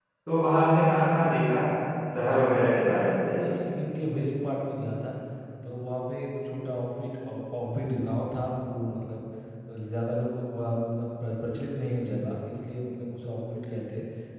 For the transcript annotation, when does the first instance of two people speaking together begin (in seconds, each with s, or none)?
2.2 s